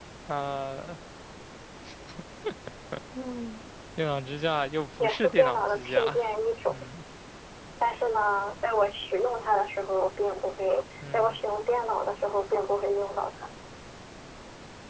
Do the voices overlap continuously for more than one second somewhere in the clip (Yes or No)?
Yes